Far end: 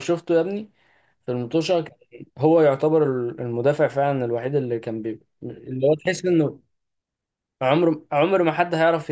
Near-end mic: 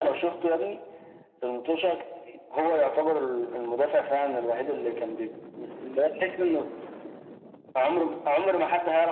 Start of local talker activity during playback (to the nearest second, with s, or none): none